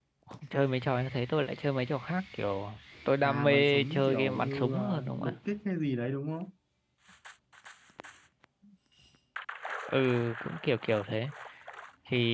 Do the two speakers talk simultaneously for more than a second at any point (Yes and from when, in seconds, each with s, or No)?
Yes, from 3.2 s